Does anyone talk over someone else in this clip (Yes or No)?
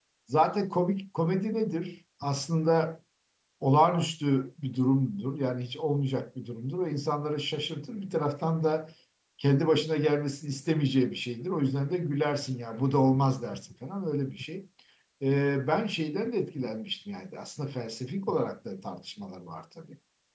No